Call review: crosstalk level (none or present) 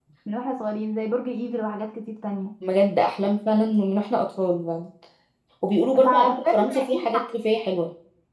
present